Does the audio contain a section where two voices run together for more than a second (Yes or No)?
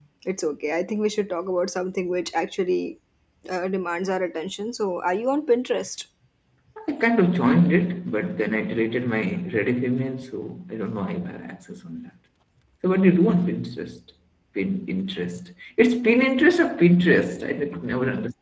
No